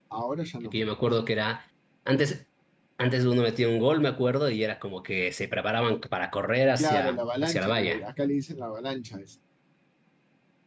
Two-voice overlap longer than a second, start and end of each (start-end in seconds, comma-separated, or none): 6.8-8.0